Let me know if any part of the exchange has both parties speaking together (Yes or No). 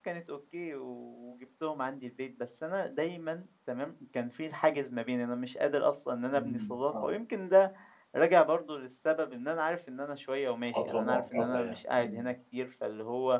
Yes